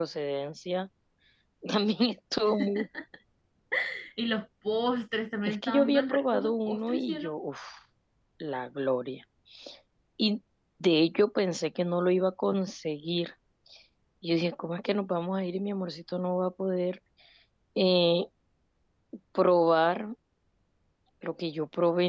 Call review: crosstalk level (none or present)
present